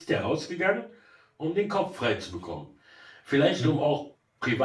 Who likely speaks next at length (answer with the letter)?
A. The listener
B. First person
B